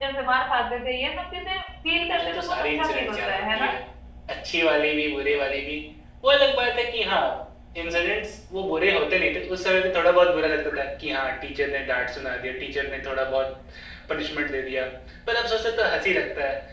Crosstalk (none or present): present